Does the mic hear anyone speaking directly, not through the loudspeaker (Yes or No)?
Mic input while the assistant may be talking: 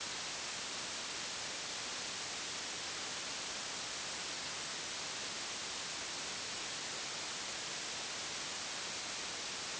No